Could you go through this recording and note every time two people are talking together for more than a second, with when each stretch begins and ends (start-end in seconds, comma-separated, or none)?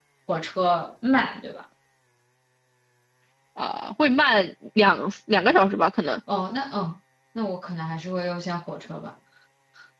none